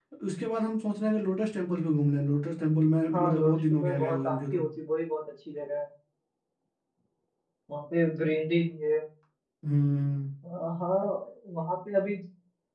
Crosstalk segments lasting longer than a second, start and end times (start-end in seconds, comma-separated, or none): 3.1-4.6